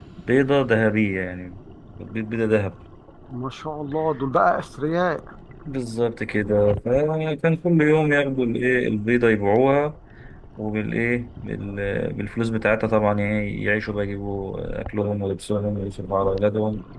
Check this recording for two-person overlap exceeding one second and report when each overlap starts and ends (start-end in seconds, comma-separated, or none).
none